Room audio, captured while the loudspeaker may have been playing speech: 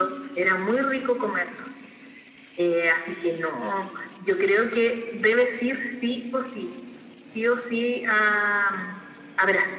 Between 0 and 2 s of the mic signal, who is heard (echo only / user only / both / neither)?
echo only